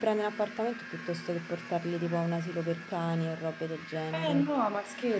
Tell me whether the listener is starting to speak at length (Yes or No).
Yes